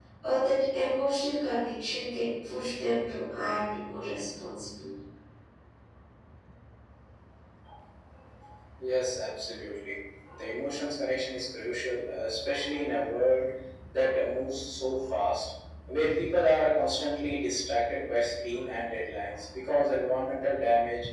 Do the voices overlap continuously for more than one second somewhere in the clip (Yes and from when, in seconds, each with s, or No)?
No